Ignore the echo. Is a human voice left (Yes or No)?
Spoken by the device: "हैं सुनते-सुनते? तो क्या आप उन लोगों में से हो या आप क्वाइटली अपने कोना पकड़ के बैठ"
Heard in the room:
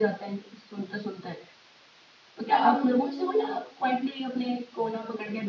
Yes